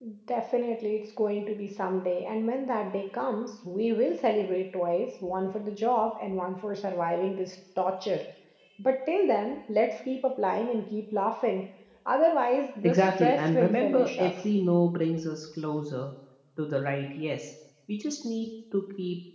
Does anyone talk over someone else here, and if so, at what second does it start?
12.8 s

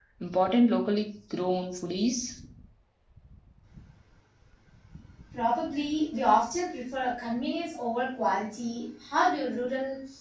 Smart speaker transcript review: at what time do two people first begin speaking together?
none

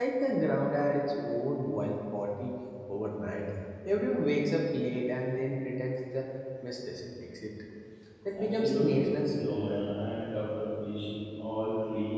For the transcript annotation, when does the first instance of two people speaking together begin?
8.4 s

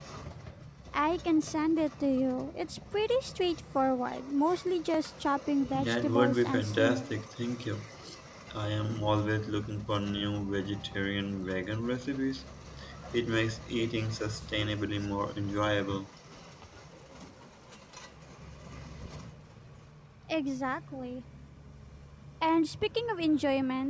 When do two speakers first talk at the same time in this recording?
5.7 s

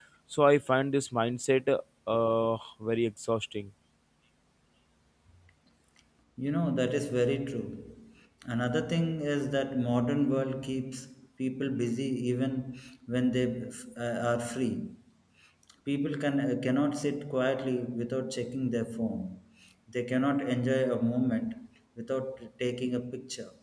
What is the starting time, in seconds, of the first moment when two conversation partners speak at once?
none

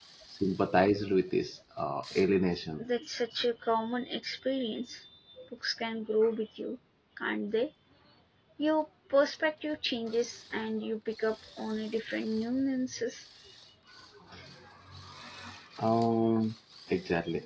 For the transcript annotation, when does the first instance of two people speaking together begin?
none

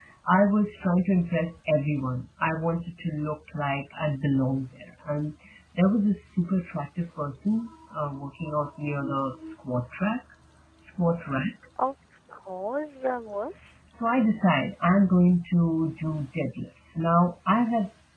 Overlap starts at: none

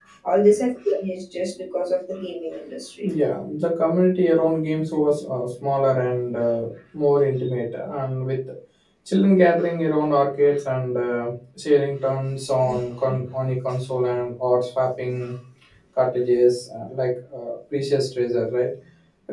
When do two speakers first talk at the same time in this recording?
none

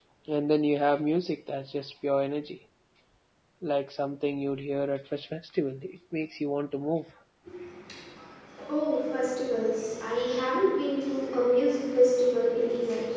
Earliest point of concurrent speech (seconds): none

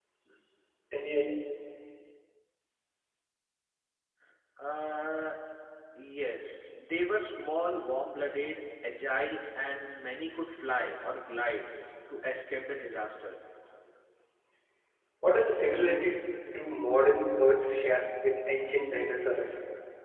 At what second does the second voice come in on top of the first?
none

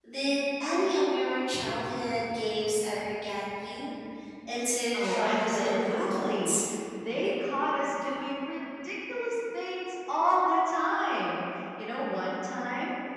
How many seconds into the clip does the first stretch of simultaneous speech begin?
4.9 s

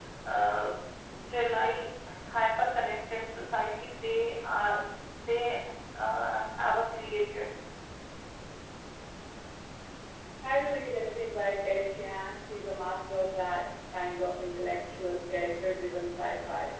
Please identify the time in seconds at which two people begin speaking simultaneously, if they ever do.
none

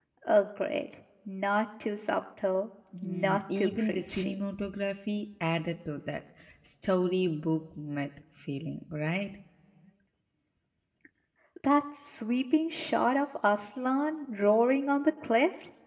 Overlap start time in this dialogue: 2.9 s

